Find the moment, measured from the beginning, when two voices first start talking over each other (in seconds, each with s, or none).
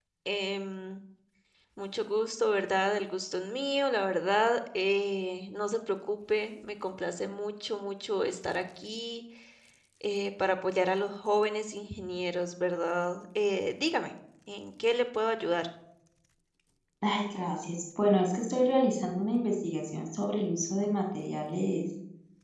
none